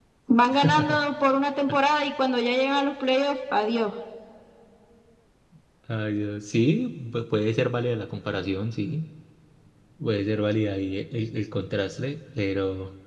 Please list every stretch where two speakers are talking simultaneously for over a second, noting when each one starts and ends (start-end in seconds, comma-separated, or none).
none